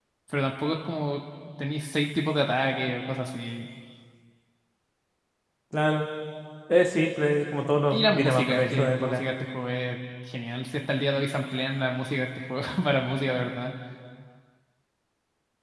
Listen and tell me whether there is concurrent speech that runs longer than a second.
Yes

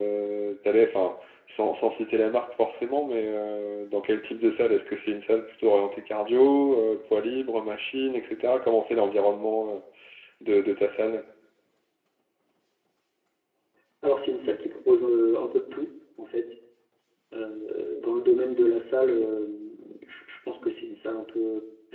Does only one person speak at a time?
Yes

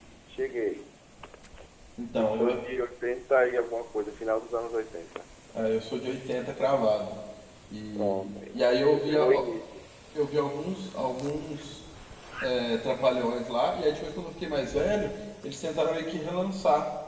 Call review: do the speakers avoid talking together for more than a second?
No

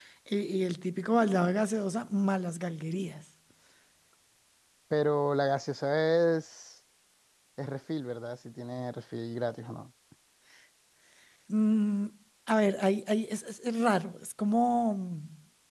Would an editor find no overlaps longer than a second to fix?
Yes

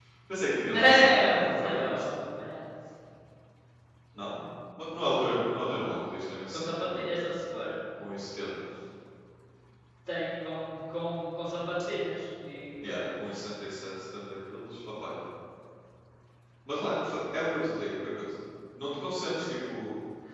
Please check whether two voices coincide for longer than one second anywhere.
Yes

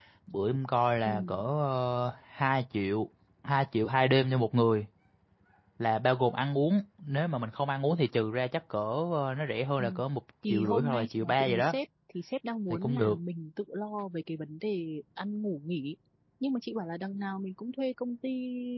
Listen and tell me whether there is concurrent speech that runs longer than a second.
Yes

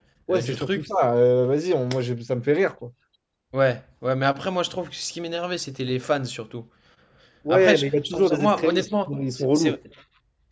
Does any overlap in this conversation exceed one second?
Yes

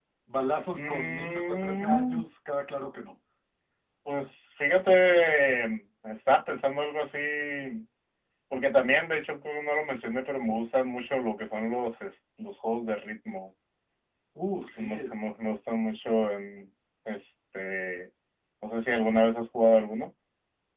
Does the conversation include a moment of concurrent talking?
Yes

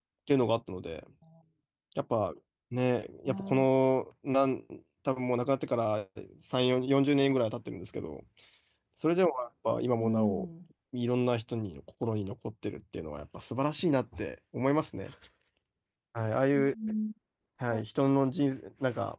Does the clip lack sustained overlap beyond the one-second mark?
Yes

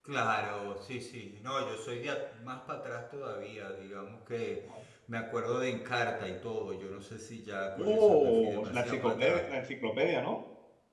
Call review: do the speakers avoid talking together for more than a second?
No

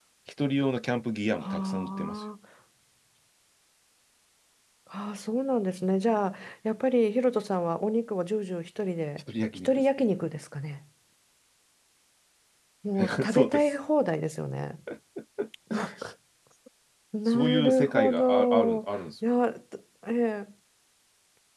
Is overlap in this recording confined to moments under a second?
No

